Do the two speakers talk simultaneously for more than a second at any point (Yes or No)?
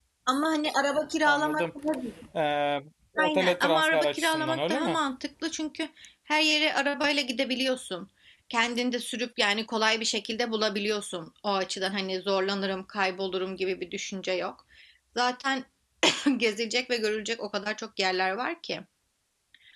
Yes